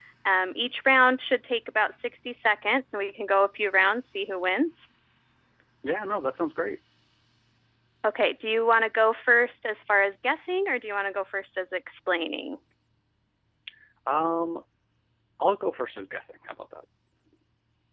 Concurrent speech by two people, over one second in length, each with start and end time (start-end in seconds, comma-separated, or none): none